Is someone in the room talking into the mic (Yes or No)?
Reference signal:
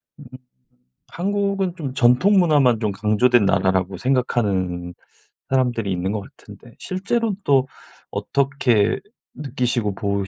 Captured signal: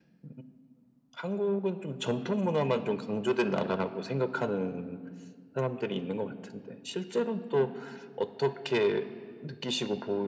No